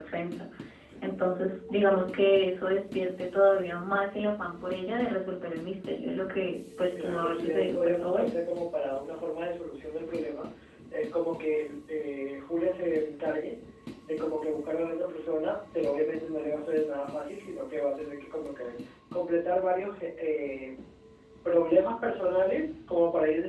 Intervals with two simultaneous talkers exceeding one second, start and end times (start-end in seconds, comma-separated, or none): 7.0-8.3